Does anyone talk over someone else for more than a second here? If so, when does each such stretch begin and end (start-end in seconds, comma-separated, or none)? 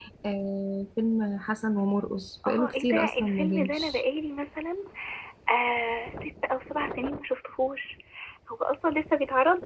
2.5-4.0